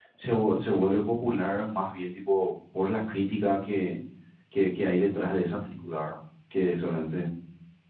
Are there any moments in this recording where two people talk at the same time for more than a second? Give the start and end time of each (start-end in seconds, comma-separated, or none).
none